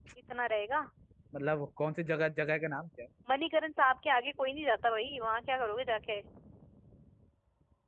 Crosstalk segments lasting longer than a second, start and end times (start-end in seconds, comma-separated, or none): none